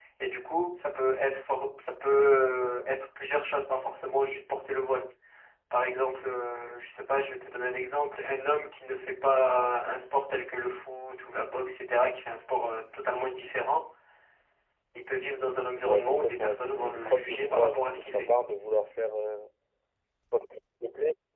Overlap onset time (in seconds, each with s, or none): 15.8 s